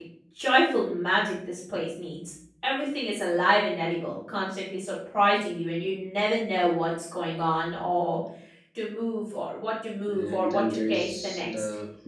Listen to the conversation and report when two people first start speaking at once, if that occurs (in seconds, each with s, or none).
10.1 s